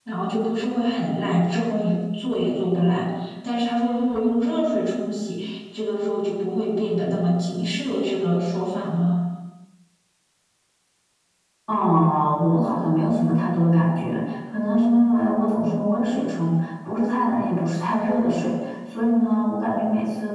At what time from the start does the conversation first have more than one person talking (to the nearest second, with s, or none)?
none